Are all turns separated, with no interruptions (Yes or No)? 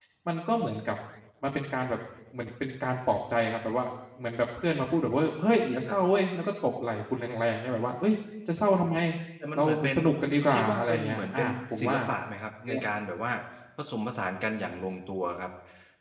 No